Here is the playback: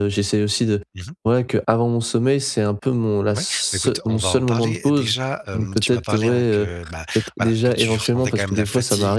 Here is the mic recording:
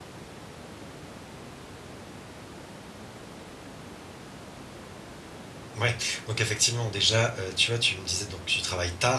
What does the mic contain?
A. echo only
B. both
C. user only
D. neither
C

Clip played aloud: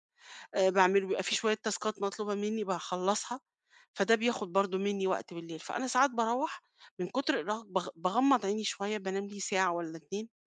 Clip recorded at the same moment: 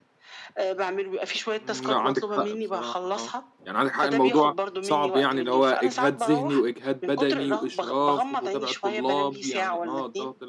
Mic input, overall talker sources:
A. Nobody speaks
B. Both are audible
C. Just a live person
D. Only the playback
B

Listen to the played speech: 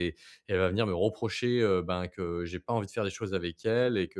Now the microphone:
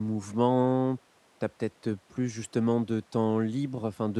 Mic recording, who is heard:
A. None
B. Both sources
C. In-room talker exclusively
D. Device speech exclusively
C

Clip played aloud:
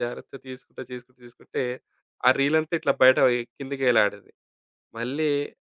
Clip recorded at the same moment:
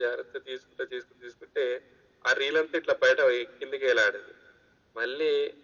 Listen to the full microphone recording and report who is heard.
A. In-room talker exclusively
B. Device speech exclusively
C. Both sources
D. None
B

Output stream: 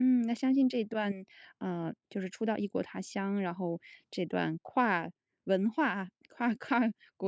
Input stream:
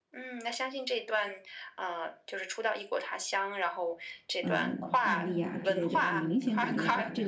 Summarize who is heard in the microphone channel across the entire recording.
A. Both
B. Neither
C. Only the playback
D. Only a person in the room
A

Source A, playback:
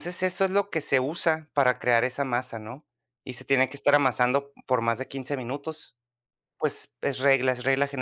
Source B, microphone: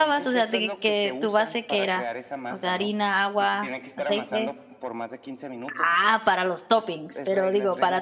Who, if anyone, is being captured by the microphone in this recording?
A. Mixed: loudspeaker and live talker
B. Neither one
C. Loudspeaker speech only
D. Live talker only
A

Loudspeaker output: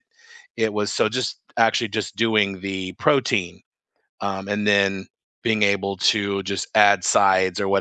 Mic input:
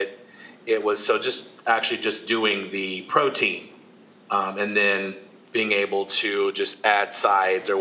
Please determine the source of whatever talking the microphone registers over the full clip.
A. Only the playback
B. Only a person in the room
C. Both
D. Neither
A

